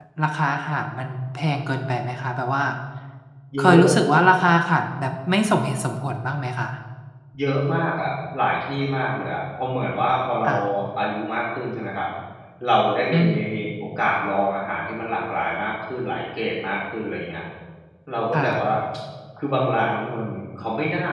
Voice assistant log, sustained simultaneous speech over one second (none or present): none